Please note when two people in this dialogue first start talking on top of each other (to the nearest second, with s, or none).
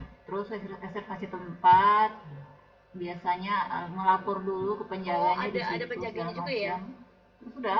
5 s